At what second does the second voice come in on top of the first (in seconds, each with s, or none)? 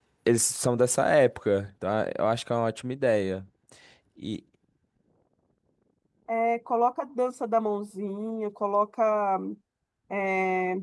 none